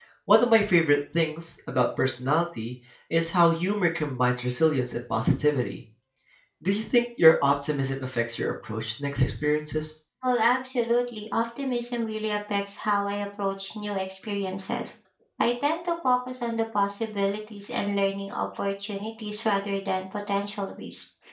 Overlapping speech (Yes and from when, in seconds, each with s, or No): No